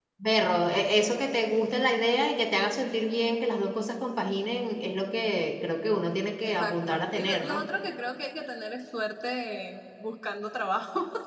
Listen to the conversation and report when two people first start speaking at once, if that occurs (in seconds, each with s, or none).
6.4 s